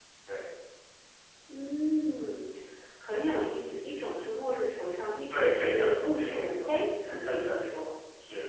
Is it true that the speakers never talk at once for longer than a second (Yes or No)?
No